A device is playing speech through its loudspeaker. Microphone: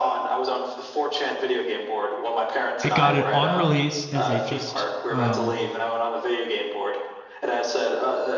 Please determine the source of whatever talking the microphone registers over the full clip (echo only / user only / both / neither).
both